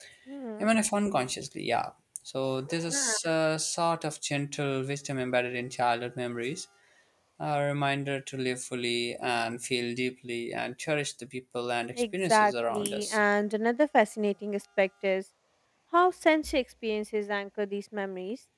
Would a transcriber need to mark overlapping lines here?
Yes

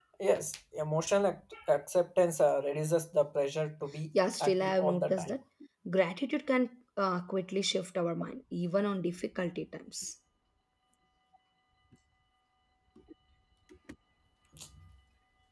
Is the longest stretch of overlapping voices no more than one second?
No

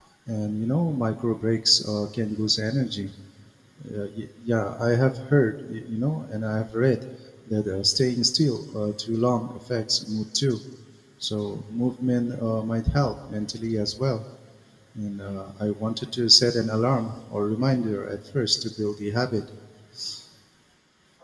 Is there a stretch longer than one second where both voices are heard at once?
No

